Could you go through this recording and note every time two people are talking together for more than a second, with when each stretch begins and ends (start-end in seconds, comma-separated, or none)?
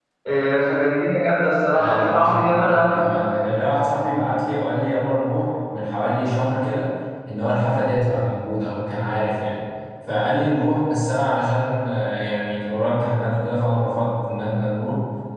1.8-3.0